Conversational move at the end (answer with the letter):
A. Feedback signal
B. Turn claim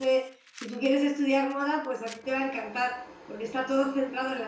A